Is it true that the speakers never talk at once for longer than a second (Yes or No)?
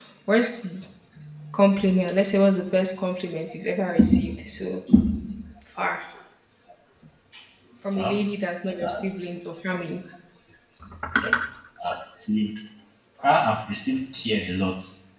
Yes